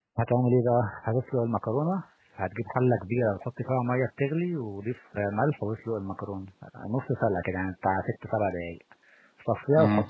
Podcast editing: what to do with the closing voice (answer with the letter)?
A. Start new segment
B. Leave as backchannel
B